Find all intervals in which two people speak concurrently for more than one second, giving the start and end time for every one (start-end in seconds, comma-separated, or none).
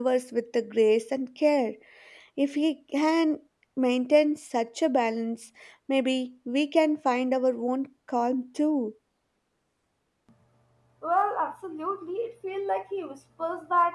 none